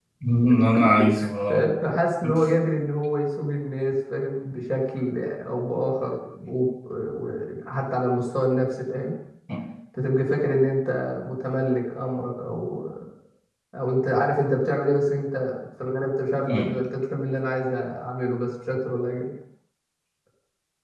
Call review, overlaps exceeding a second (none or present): none